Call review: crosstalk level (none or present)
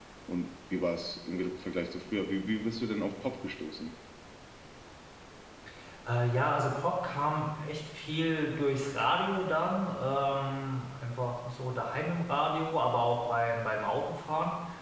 none